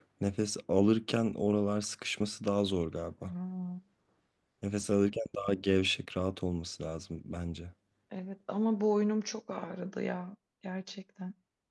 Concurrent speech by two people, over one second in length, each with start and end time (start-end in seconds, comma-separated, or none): none